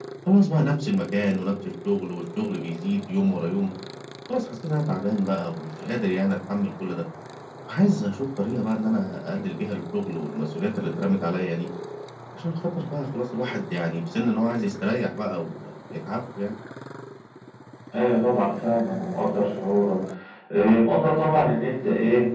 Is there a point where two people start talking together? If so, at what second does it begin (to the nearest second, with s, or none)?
none